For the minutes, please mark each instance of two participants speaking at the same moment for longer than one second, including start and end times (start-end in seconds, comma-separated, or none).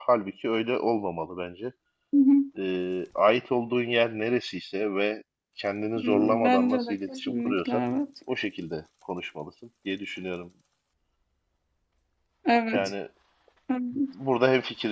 6.0-7.8